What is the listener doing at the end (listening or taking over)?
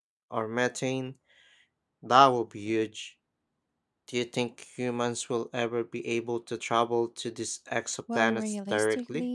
taking over